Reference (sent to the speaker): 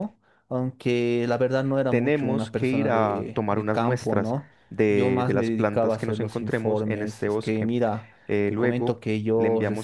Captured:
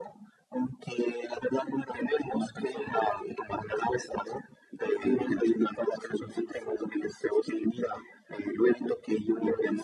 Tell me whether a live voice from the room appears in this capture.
No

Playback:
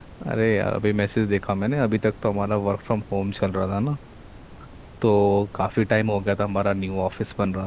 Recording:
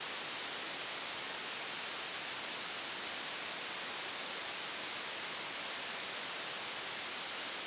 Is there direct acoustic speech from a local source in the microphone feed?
No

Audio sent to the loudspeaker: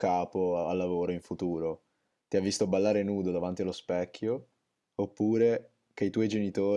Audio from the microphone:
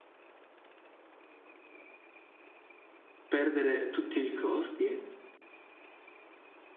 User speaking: Yes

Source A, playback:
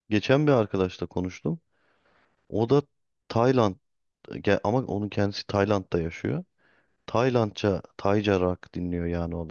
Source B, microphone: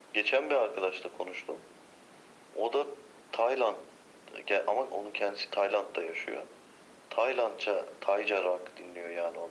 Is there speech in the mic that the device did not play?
No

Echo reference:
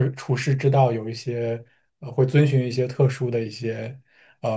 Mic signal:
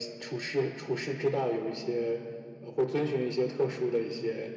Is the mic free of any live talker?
Yes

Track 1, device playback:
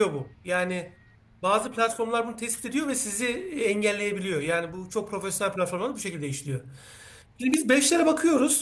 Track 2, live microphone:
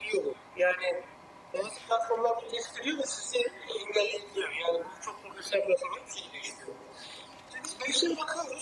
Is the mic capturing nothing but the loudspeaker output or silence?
Yes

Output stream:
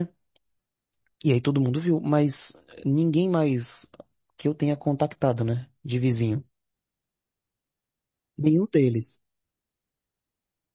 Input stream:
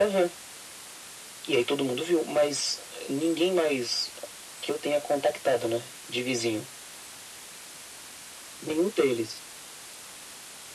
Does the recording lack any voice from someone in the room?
Yes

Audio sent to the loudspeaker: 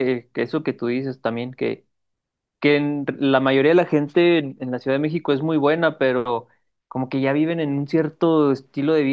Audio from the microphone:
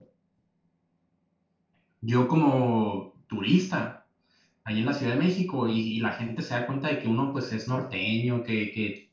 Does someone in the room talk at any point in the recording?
Yes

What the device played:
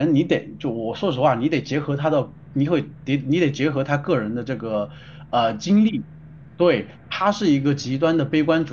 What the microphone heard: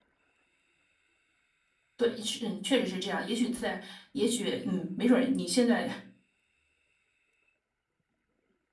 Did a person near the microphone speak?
Yes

